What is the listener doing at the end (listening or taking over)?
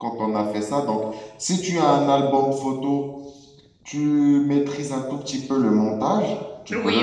taking over